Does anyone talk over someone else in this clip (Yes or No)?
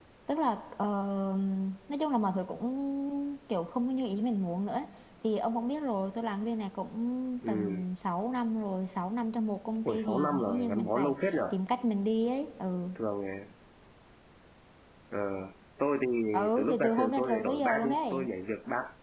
Yes